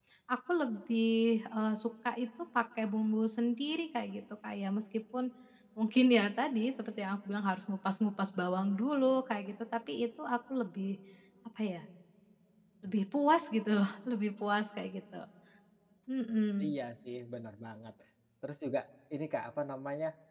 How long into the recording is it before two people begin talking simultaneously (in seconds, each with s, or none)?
none